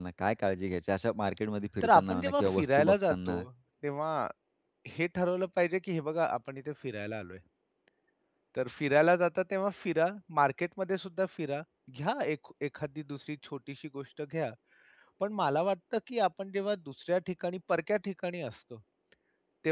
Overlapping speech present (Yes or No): Yes